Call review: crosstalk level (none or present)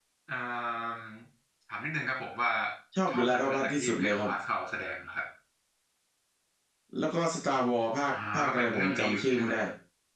present